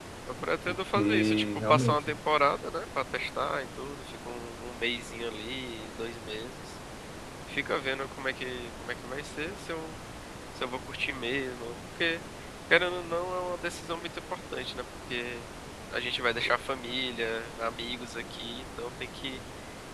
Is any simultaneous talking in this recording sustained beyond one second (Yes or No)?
Yes